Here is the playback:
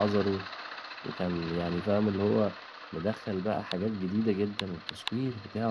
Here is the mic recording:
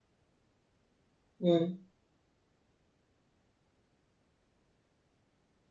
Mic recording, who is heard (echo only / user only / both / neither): user only